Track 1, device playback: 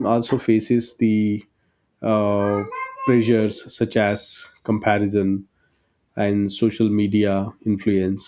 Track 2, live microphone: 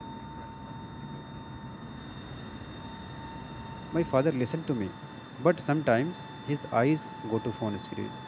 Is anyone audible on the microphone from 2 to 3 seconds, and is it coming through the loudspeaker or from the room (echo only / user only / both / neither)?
neither